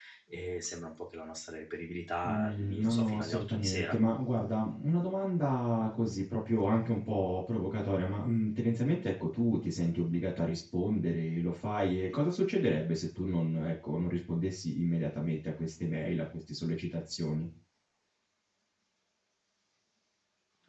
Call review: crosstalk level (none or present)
present